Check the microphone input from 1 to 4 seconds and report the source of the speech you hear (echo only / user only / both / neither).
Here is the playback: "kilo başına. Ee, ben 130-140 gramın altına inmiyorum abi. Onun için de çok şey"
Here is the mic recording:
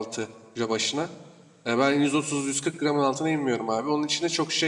echo only